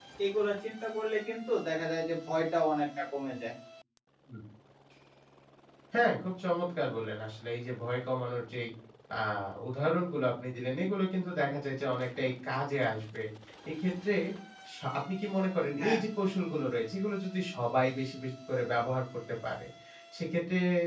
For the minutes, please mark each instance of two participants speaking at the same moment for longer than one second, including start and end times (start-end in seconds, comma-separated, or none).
none